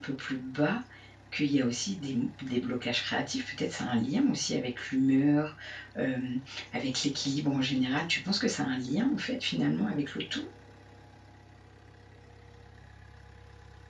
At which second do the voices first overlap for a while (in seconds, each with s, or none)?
none